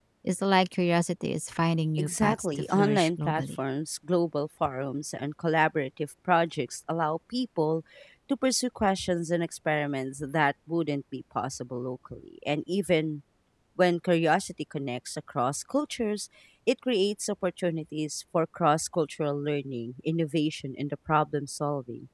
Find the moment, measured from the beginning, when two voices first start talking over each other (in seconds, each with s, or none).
2.0 s